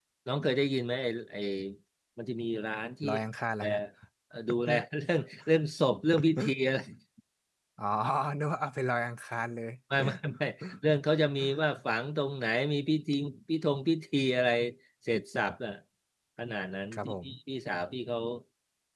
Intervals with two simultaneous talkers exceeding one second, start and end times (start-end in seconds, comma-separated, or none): none